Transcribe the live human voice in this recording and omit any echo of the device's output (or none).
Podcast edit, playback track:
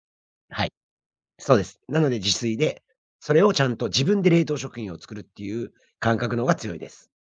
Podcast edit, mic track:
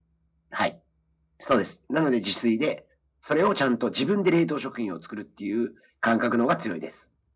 none